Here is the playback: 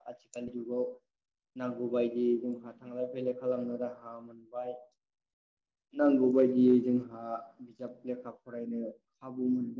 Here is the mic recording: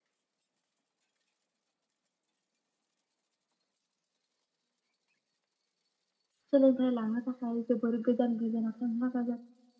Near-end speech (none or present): present